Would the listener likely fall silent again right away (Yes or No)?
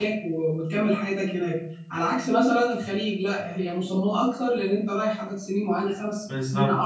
Yes